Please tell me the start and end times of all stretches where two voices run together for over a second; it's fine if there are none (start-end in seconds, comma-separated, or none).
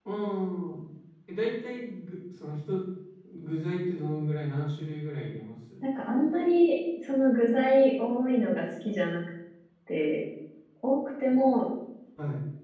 none